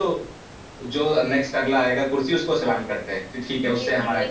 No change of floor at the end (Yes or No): No